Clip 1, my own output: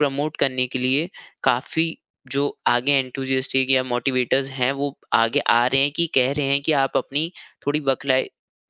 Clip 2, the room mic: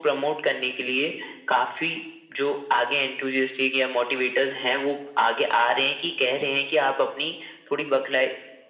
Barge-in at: none

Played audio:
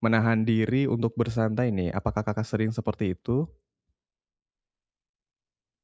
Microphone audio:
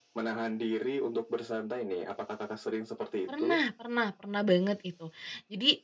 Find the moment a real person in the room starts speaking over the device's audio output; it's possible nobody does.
3.2 s

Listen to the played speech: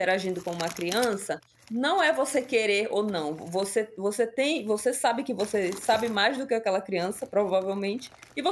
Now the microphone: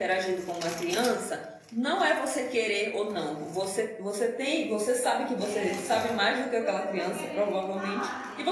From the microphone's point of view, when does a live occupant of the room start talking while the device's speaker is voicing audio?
5.4 s

